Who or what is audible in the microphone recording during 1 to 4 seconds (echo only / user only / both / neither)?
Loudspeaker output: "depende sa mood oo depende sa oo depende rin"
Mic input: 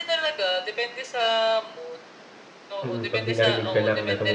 both